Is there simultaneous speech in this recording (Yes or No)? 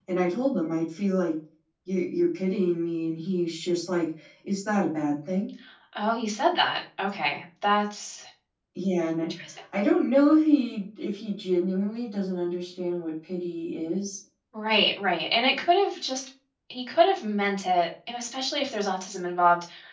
No